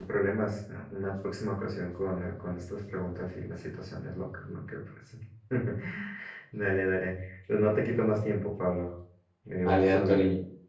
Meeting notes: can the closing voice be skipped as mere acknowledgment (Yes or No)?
No